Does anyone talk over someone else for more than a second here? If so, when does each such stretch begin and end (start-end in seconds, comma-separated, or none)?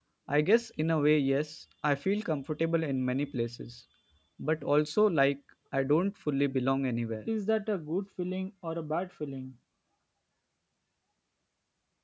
none